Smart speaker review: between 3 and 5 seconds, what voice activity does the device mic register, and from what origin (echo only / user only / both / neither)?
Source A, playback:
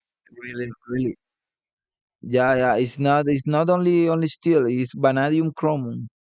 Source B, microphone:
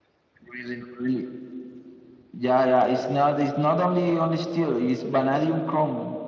echo only